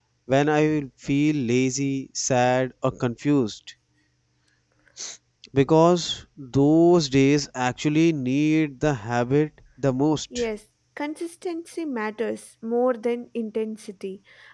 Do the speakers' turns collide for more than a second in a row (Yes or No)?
No